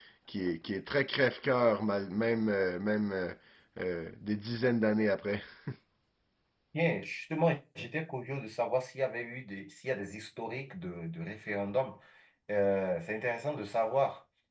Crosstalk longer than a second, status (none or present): none